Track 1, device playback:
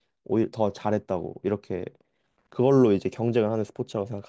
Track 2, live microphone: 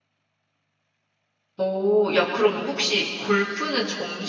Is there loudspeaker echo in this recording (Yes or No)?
No